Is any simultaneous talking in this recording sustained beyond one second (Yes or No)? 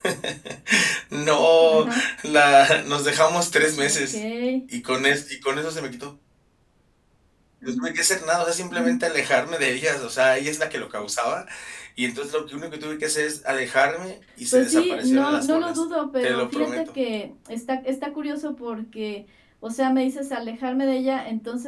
Yes